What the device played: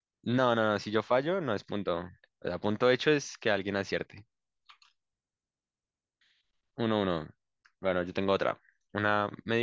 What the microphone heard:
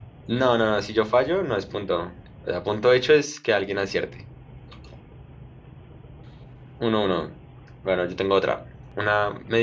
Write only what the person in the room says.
none

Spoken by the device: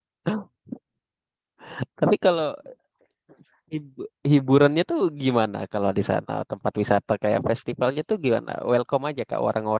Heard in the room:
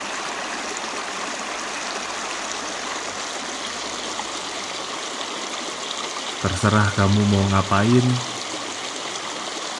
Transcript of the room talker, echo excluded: terserah kamu mau ngapain,

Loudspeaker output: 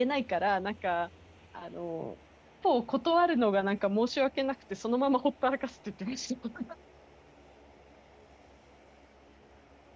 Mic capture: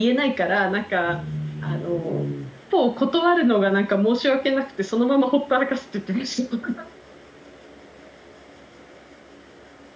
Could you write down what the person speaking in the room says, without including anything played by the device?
うーん。

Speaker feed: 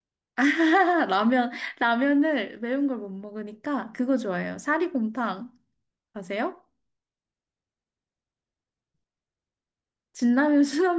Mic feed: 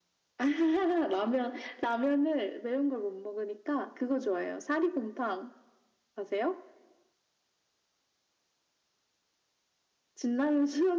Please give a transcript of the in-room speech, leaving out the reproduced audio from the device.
none

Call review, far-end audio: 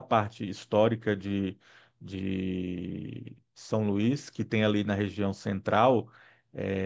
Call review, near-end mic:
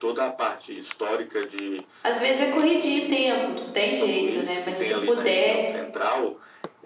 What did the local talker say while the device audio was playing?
Às vezes é corridinho o tempo, não tem jeito, né? Mas se puder

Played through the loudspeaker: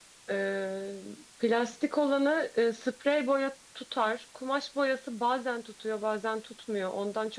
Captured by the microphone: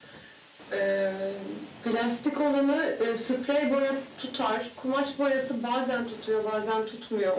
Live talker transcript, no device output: none

